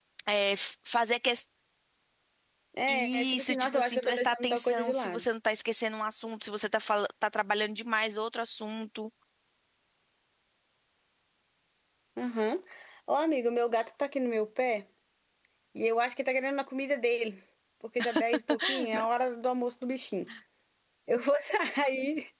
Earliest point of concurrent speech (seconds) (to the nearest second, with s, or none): 3 s